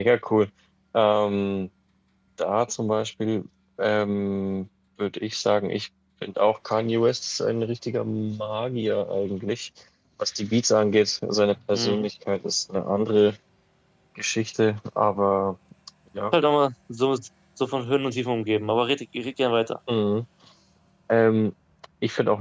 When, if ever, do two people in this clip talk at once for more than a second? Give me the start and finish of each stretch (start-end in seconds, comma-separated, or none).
none